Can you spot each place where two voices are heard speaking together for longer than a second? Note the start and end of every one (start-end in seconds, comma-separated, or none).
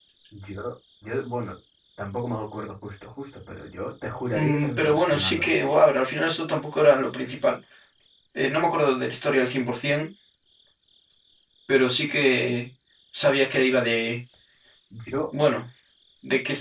4.3-5.7